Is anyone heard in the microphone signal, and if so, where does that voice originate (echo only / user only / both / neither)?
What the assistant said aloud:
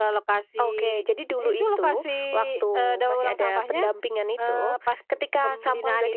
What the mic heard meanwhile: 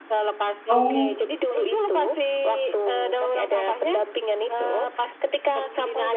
both